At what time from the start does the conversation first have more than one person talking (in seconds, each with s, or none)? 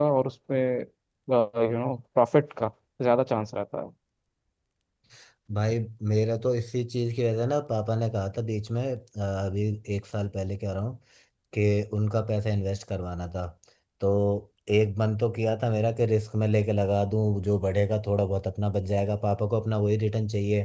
none